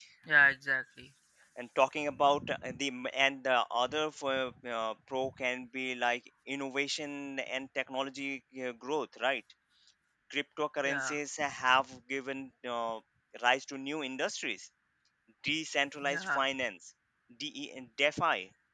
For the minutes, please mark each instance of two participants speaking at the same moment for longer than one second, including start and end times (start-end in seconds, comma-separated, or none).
none